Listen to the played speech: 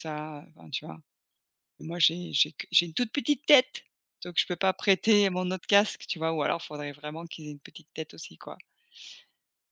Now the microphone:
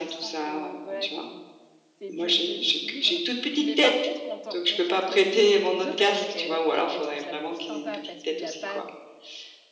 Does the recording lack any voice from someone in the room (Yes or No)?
No